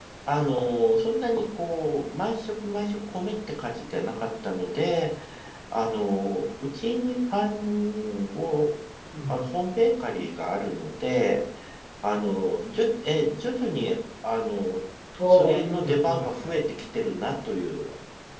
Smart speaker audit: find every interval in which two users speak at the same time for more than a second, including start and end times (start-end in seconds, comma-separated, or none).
15.3-16.6